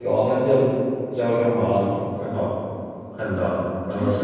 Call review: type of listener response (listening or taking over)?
taking over